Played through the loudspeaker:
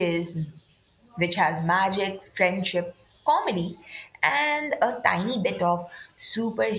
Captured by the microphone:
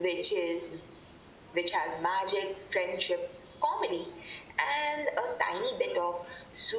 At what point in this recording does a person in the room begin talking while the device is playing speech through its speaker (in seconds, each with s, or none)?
none